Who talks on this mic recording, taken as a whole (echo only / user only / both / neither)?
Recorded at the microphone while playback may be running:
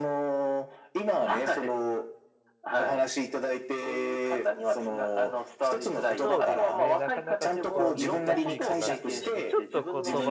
both